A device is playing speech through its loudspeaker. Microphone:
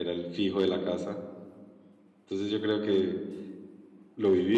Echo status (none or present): none